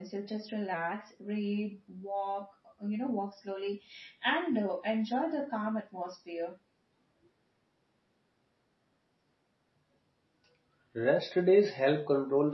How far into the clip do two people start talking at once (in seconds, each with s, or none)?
none